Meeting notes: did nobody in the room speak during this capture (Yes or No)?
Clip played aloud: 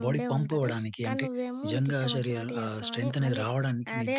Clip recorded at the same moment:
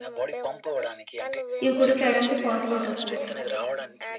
No